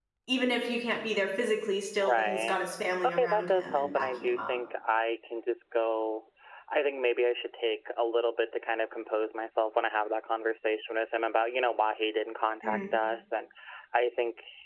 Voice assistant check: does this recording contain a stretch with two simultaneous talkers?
Yes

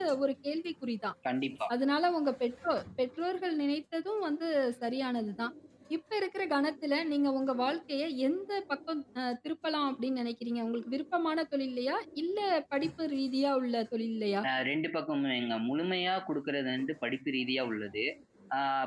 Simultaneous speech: No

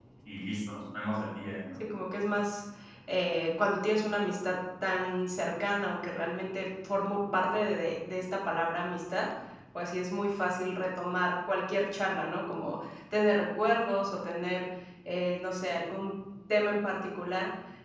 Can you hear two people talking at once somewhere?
No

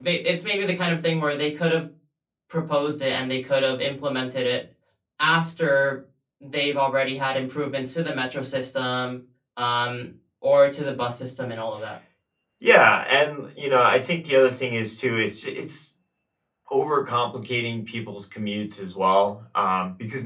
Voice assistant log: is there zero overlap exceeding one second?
Yes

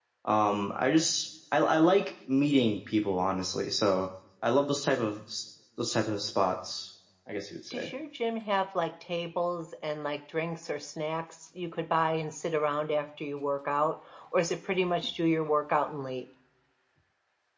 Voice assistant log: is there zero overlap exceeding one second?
Yes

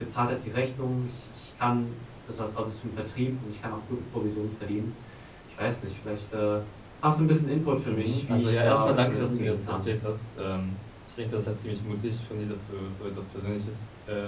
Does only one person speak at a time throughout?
No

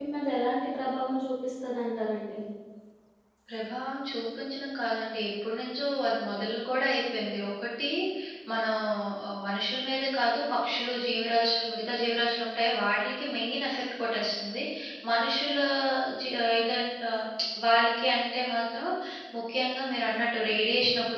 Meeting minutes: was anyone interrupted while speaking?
No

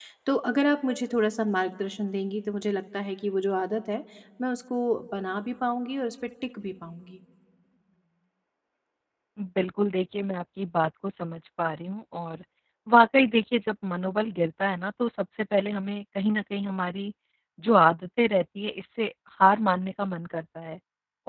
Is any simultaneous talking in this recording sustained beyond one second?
No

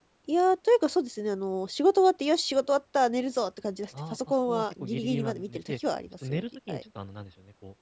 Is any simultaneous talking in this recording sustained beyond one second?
Yes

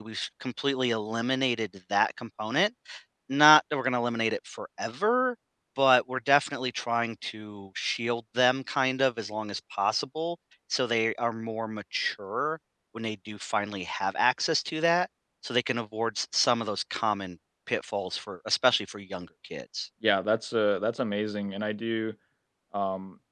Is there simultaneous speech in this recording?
No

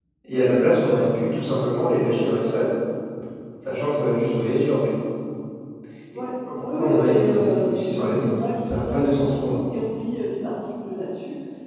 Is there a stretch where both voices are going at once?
Yes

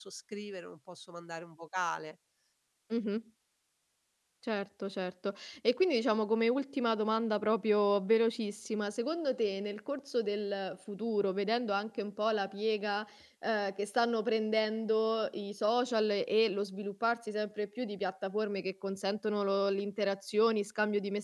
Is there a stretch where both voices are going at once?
No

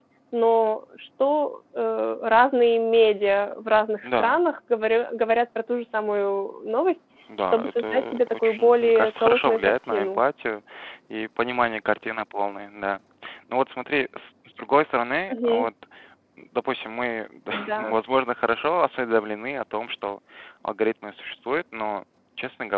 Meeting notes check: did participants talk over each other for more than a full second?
Yes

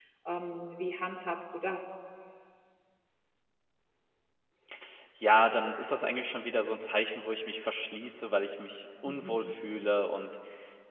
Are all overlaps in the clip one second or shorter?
Yes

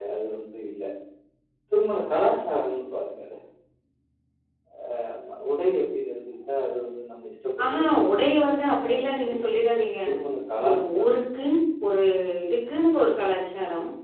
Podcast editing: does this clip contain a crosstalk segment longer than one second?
Yes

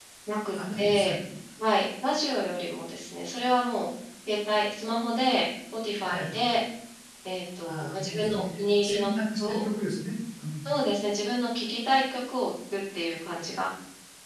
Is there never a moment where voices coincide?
No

